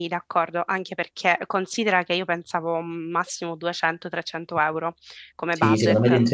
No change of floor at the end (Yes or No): No